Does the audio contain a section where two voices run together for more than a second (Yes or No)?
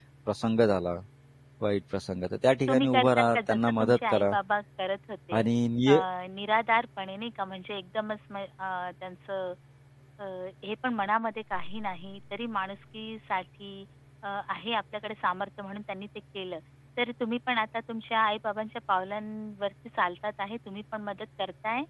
Yes